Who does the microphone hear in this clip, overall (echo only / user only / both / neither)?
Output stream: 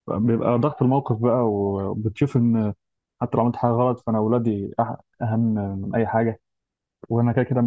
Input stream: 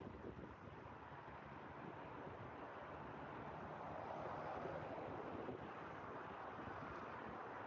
neither